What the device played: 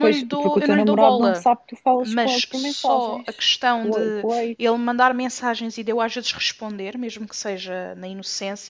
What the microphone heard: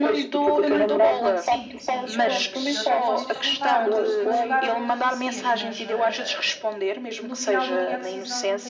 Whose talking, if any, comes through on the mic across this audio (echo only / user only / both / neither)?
both